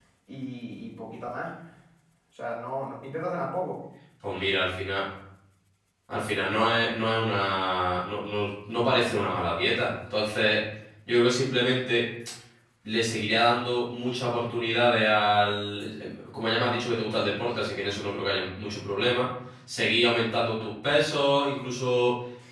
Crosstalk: none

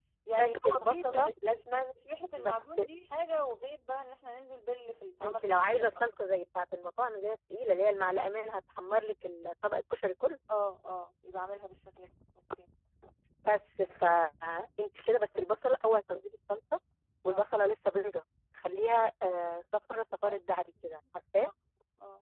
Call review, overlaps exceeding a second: present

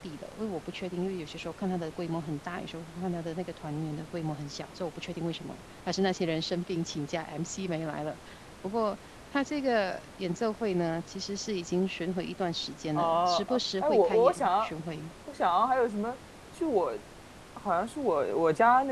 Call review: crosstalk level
present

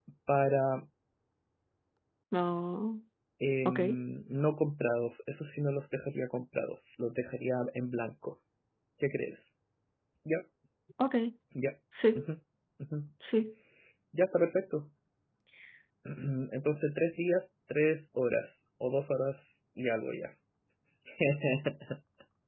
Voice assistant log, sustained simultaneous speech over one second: none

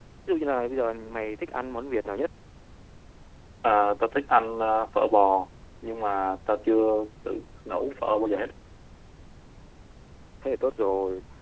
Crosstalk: none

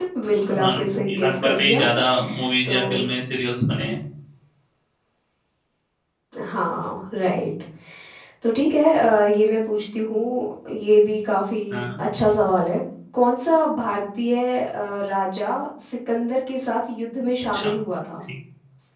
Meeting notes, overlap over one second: present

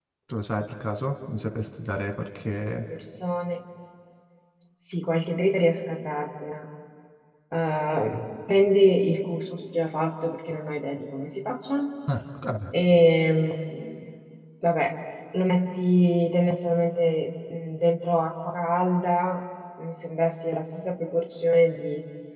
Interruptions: none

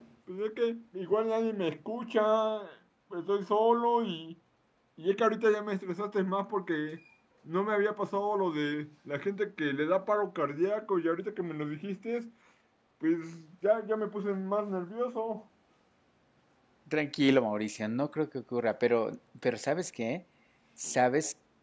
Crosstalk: none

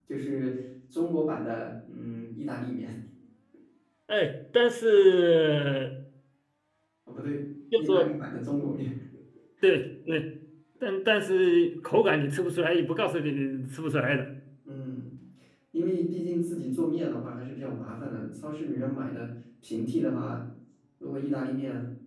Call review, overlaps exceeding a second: none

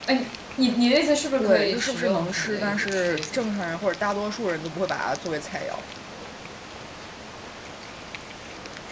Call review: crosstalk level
present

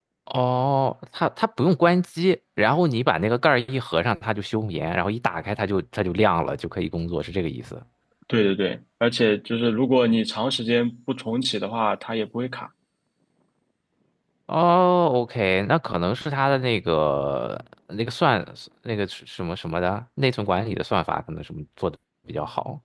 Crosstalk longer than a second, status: none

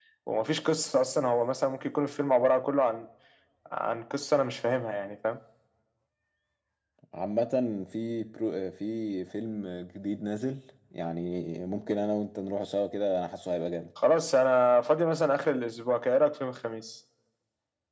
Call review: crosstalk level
none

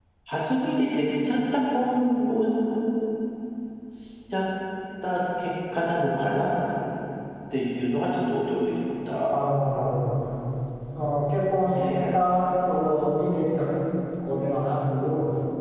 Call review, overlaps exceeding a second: none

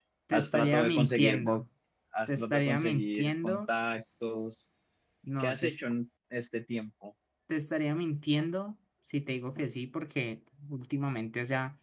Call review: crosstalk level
present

